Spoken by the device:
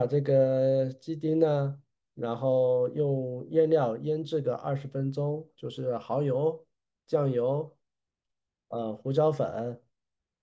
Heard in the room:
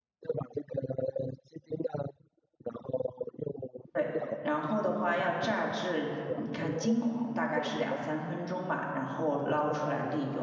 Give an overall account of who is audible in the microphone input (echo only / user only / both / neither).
both